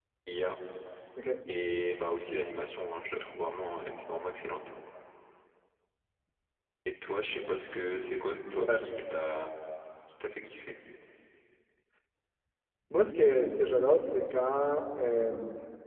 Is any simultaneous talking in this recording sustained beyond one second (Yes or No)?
No